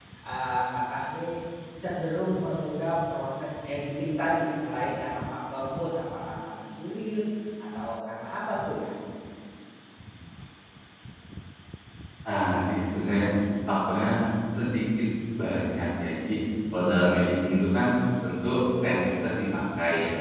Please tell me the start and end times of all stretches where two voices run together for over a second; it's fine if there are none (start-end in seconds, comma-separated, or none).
none